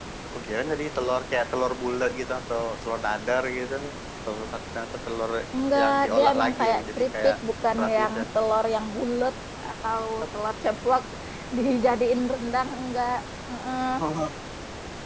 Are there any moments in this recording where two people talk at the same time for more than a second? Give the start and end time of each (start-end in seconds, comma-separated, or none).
5.8-7.3